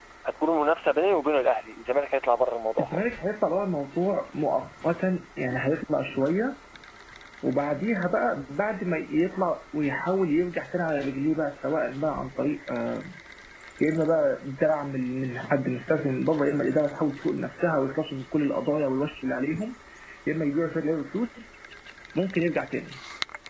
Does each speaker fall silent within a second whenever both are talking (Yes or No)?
Yes